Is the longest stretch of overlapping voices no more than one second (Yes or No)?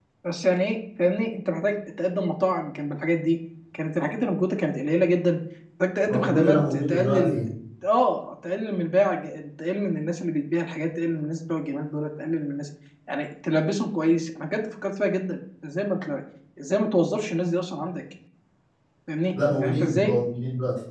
No